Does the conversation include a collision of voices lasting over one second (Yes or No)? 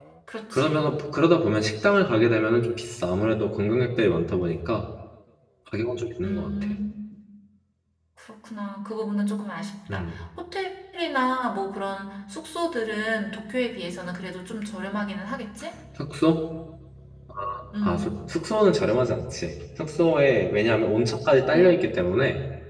No